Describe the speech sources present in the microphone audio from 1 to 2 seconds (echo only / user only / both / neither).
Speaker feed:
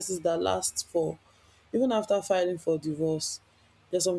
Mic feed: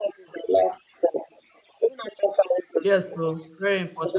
echo only